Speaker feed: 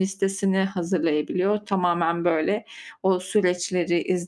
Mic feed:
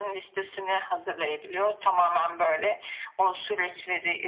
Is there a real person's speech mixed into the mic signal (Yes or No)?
No